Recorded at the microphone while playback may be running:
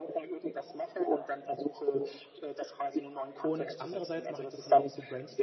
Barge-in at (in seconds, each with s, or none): 3.4 s